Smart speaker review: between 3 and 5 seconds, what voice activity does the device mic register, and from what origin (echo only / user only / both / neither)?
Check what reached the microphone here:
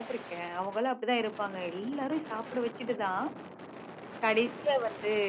echo only